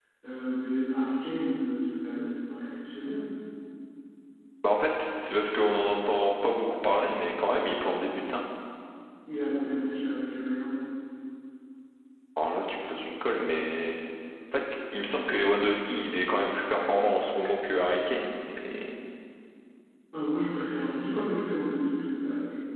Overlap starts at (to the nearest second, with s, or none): none